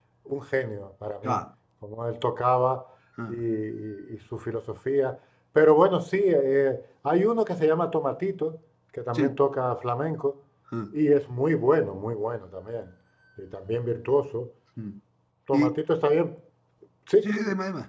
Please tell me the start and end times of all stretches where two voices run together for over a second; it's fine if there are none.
none

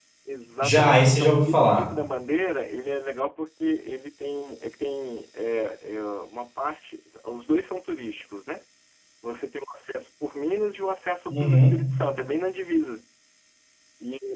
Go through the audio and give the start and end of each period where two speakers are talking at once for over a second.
0.6-1.9

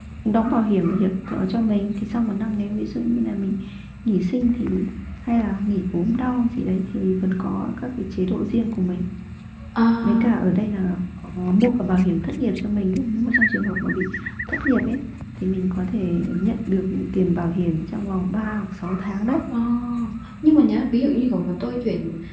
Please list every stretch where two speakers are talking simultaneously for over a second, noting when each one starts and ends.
none

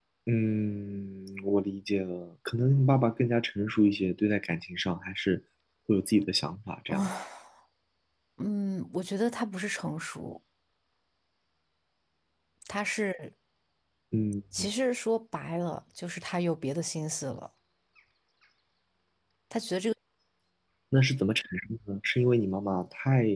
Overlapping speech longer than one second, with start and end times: none

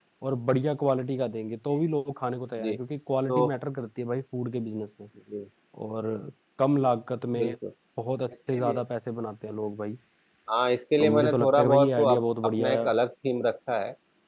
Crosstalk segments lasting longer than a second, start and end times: 11.0-12.8

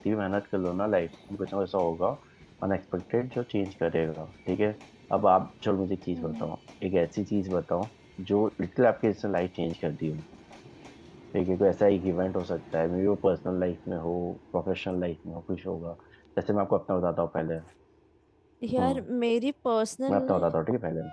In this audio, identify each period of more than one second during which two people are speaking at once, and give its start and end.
none

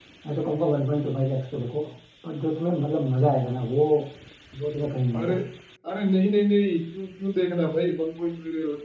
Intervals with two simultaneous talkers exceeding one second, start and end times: none

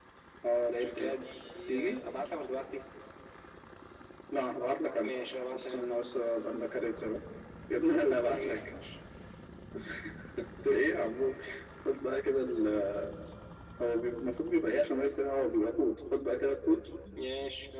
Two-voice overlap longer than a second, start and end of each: none

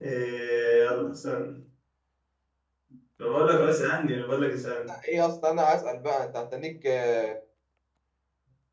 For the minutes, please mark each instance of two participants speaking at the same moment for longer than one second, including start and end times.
none

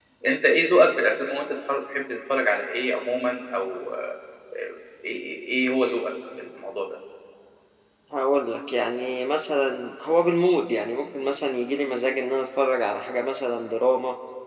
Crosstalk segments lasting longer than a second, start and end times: none

